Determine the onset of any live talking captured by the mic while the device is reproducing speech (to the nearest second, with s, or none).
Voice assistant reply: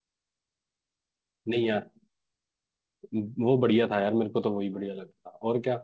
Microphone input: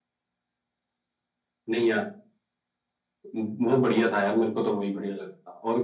none